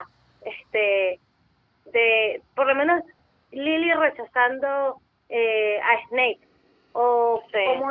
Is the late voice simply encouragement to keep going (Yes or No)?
Yes